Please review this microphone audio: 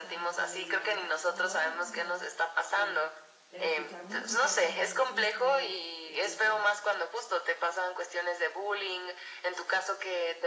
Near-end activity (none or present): present